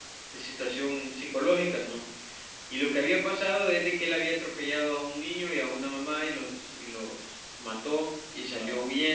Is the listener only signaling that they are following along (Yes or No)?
Yes